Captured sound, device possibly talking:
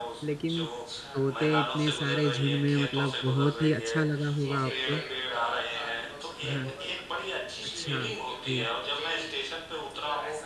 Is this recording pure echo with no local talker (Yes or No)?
No